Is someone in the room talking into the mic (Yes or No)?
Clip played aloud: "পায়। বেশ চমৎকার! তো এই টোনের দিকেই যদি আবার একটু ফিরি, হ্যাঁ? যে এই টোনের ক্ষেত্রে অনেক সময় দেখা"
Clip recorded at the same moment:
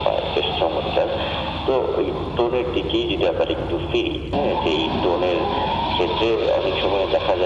No